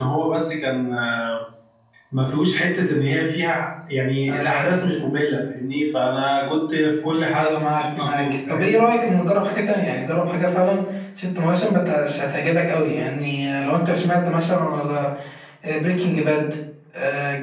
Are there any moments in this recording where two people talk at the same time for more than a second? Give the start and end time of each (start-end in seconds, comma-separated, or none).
7.3-8.8